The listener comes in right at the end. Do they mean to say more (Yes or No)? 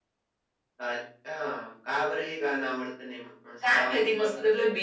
Yes